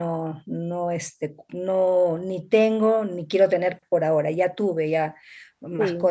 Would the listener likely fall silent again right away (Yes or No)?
Yes